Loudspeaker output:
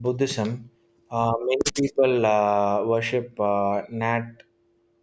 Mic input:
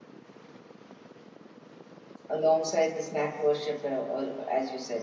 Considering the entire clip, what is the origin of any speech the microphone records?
user only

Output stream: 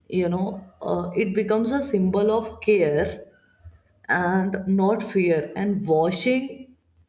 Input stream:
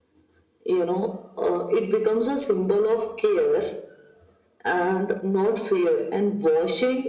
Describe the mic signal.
echo only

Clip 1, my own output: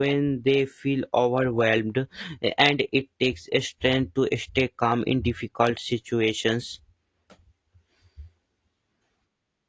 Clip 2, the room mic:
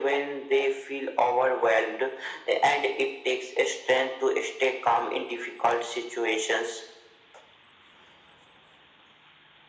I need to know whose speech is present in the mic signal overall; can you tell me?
echo only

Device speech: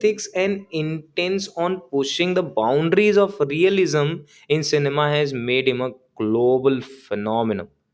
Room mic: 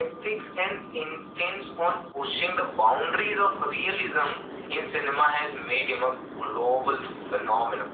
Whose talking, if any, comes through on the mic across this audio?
echo only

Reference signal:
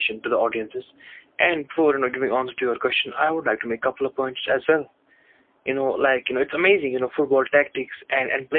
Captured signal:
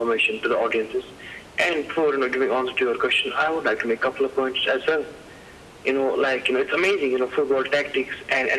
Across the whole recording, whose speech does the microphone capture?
echo only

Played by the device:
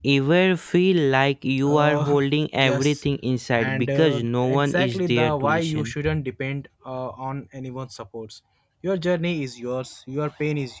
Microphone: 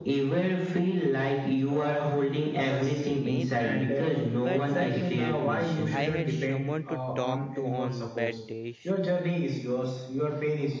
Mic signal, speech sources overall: both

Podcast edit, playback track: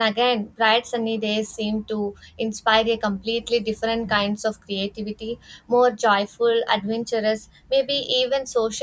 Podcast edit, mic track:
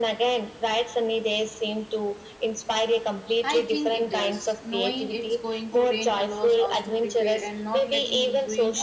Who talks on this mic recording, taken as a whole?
both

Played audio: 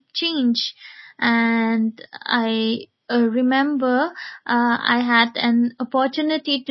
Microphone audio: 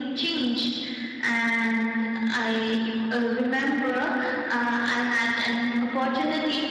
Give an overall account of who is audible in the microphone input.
echo only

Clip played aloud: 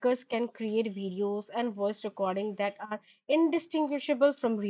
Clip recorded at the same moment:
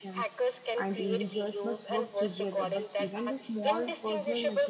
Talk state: both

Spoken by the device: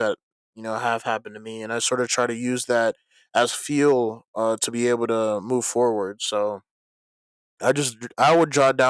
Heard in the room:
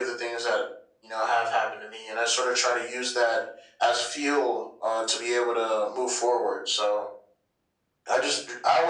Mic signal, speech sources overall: echo only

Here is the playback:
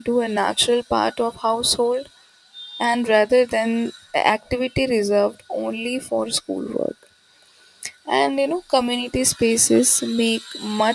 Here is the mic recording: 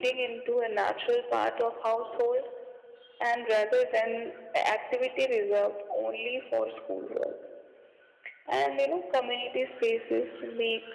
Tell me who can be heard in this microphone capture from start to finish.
echo only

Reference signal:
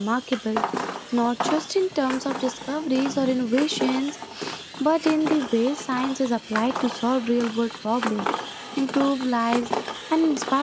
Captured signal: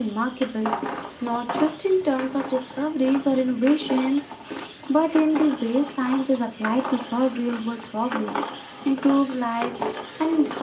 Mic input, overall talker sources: echo only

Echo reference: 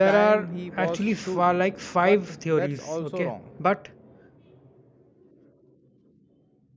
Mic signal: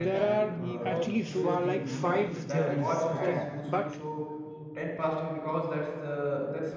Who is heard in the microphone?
both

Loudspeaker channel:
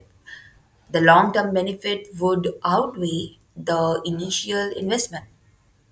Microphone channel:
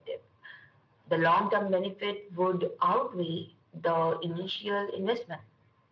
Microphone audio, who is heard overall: echo only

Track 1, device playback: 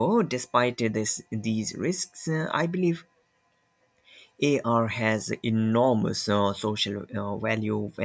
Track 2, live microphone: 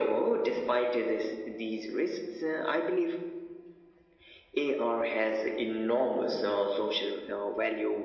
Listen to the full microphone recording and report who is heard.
echo only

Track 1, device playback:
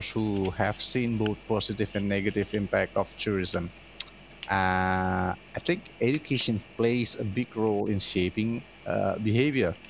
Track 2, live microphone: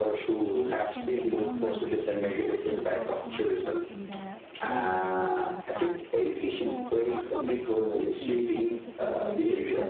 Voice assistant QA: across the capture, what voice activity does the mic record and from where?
both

